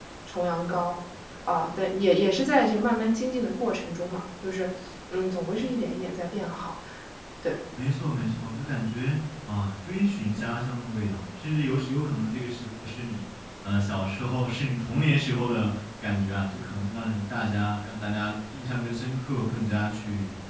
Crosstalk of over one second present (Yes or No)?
No